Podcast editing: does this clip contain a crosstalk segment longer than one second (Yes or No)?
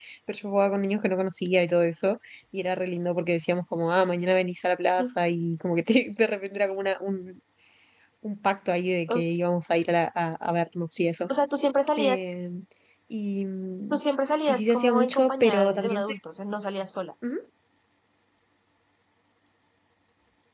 Yes